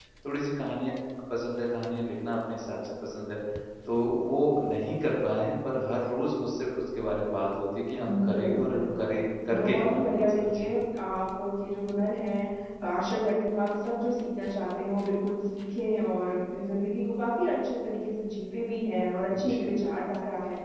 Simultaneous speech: Yes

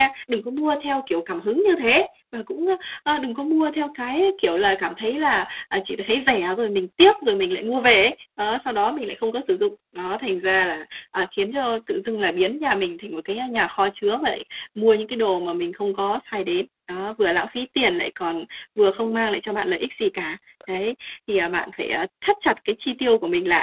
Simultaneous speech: No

